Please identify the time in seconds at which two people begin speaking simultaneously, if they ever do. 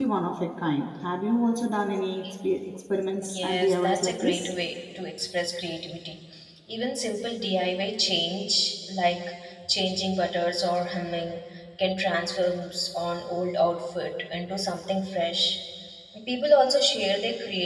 3.3 s

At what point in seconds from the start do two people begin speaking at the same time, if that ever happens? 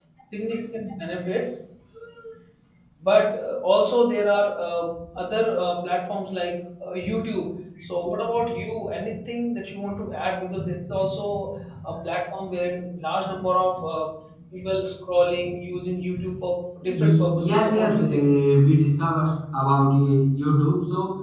16.9 s

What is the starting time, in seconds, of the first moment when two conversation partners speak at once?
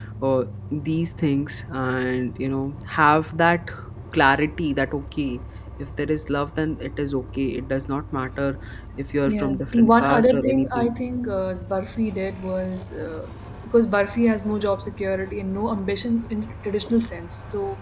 9.3 s

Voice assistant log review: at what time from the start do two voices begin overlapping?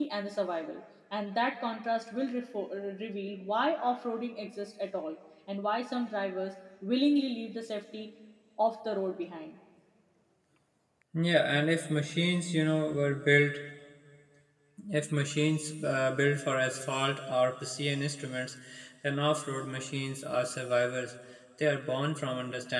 none

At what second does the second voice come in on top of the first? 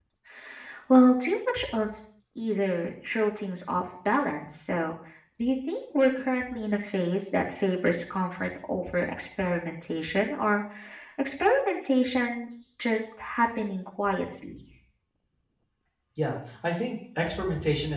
none

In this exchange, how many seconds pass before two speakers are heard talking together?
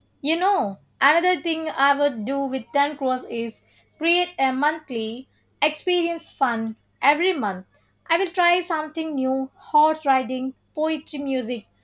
none

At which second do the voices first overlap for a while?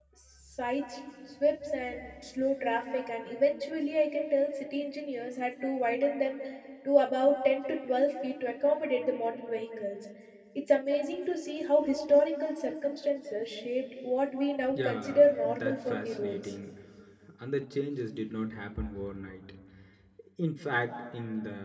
14.8 s

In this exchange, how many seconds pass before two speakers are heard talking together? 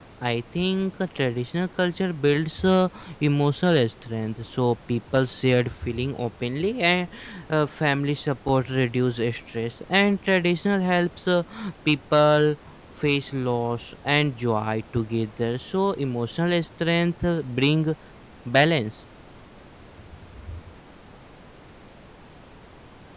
none

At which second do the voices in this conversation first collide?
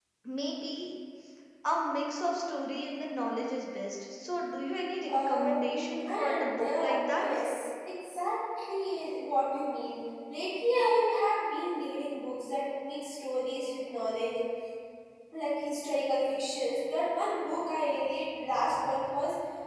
5.1 s

